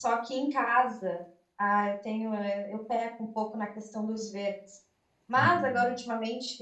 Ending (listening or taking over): listening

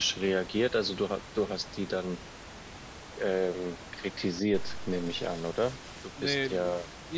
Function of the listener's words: taking over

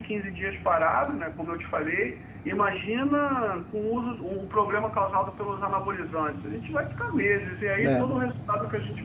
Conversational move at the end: listening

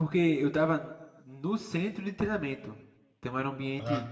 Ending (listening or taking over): listening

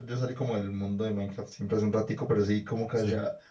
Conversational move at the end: listening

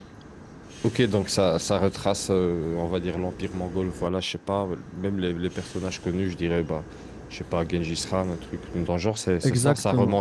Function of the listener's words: taking over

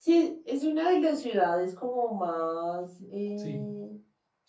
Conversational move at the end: listening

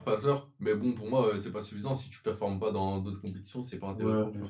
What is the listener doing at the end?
taking over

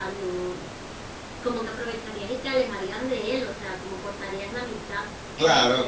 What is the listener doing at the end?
taking over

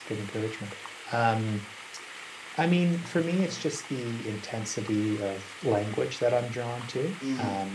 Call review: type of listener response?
listening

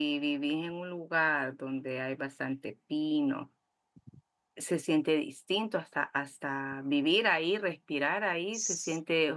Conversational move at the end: listening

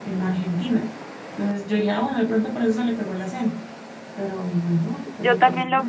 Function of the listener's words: taking over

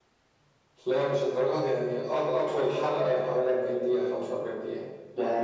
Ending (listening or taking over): taking over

